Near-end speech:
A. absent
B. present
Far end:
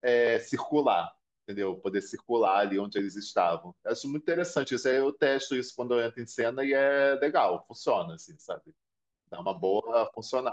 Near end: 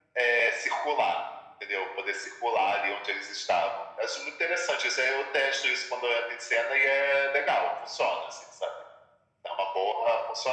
A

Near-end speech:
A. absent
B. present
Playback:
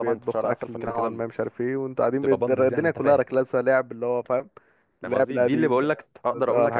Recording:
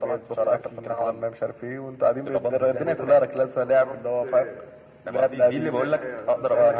B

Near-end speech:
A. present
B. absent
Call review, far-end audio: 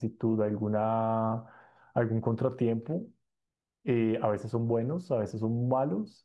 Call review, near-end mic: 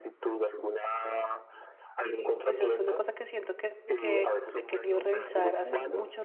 A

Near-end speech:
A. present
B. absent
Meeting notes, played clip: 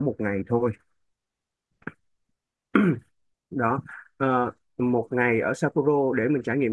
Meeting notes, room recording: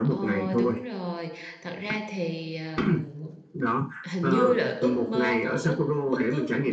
A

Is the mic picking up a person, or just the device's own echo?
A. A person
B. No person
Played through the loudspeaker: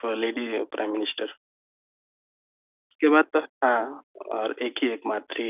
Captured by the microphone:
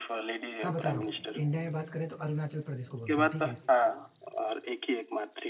A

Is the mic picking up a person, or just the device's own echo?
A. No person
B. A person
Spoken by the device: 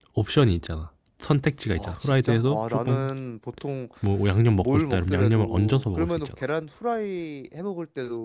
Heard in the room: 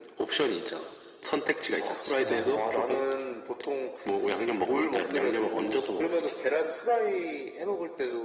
B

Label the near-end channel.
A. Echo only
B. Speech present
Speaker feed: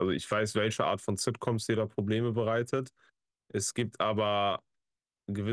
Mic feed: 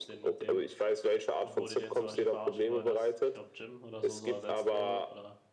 B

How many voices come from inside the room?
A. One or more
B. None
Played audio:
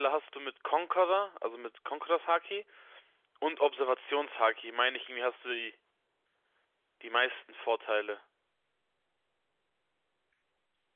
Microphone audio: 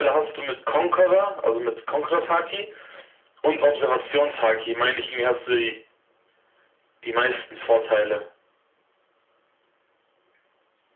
B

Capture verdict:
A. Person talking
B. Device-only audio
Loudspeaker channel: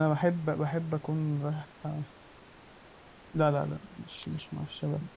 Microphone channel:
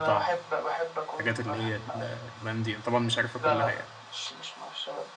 A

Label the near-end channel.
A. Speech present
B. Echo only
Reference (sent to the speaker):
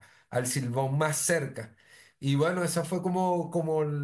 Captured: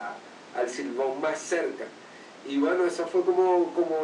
B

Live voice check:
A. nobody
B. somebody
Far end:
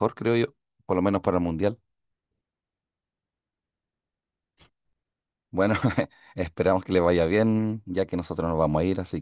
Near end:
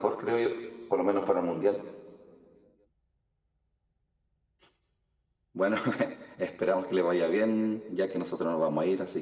A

